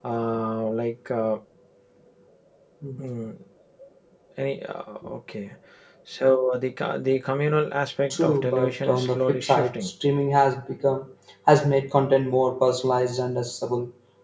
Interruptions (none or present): present